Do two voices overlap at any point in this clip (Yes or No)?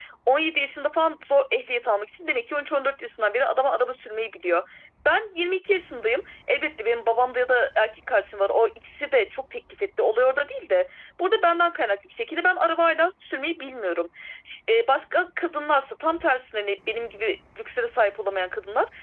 No